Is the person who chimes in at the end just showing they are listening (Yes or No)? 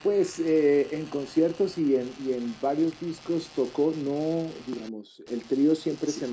Yes